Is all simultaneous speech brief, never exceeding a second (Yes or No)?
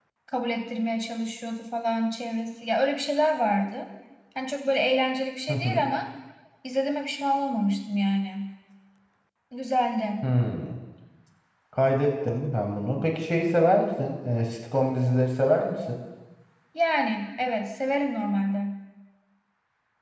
Yes